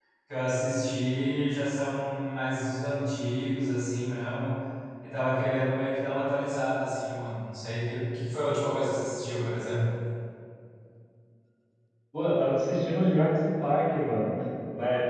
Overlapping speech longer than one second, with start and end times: none

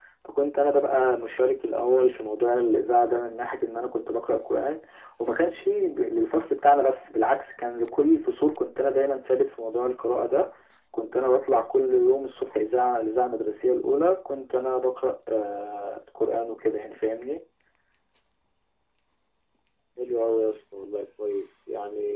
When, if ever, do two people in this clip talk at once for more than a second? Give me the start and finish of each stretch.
none

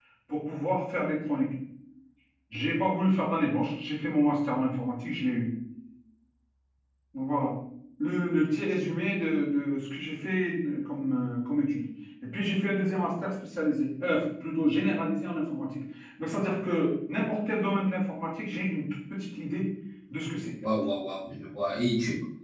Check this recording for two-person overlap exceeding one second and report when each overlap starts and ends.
none

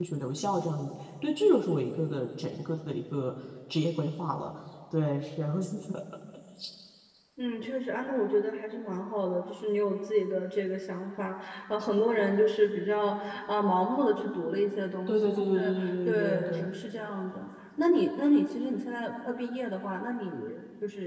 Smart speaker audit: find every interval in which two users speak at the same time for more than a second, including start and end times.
15.1-16.7

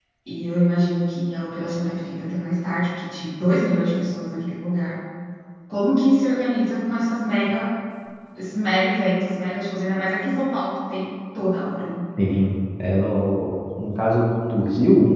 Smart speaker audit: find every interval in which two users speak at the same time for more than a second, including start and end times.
none

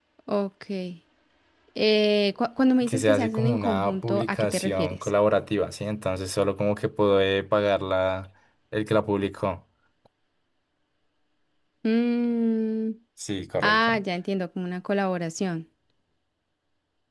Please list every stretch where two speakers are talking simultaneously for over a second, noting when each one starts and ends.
2.9-5.1

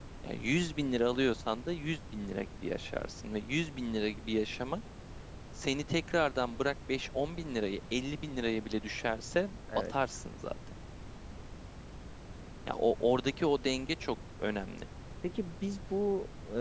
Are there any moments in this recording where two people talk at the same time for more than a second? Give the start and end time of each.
none

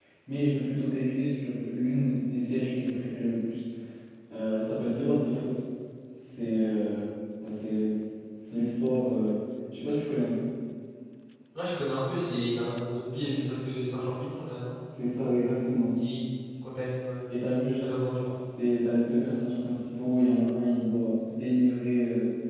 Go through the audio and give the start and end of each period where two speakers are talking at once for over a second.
none

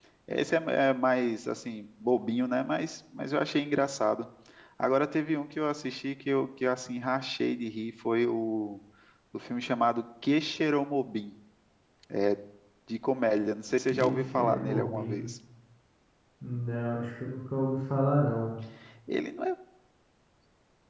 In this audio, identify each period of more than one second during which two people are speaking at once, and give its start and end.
13.9-15.2

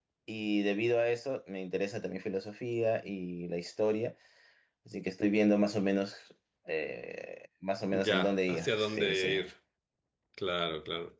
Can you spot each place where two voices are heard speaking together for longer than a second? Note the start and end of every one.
7.9-9.4

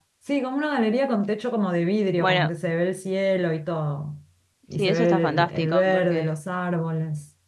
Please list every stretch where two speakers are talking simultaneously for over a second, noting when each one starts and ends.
4.8-6.3

